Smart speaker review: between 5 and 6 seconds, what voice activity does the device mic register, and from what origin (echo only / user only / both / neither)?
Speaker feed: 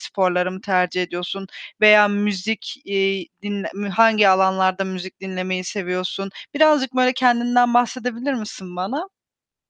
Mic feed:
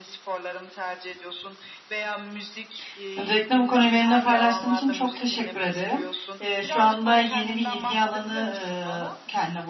both